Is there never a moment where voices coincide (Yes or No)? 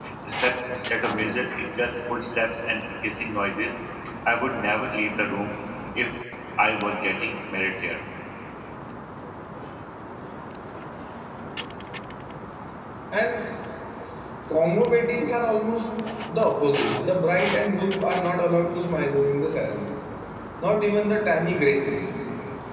Yes